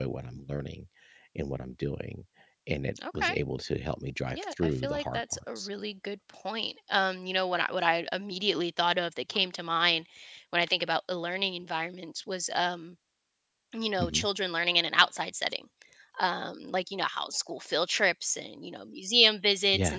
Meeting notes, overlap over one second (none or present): present